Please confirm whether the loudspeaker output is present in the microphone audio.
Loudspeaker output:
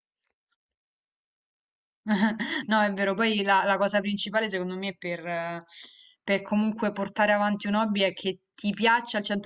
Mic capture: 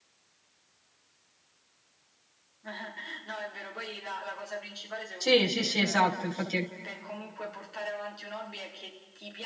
Yes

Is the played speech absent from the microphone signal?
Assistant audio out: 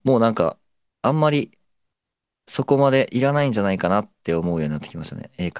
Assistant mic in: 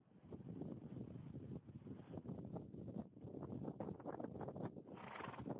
Yes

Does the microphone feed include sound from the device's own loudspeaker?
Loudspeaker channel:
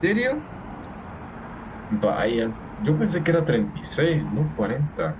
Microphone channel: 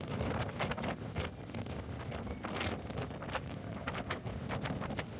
No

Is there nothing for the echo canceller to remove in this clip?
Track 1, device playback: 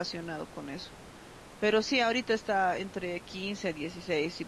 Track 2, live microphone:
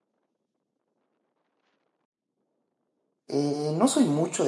Yes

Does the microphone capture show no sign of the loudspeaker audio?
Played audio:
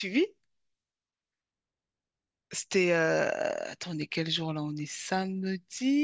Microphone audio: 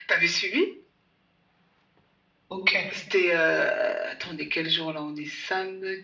No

